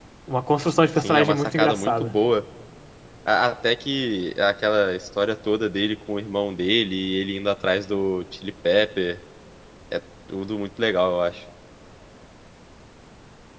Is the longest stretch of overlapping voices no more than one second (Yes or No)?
No